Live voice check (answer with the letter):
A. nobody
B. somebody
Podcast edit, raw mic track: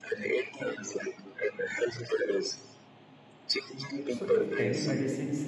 B